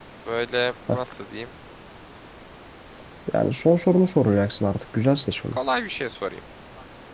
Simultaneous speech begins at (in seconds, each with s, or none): none